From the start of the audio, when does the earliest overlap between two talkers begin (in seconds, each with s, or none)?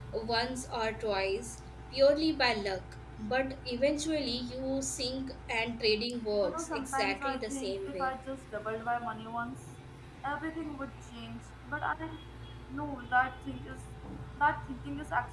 6.4 s